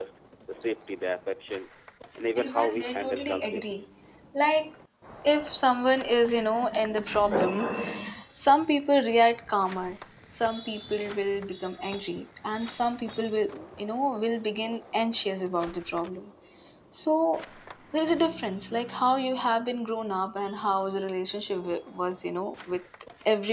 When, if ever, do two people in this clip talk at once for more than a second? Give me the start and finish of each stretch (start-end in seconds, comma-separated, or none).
2.4-3.6